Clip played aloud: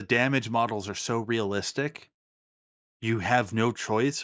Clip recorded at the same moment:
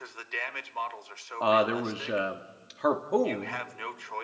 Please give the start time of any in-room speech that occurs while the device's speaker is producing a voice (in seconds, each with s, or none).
1.4 s